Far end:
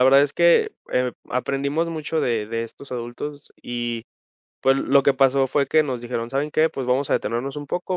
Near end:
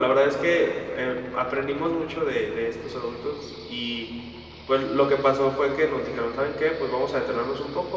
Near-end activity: none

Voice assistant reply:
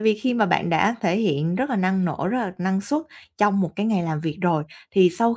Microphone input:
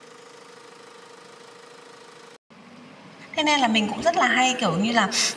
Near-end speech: present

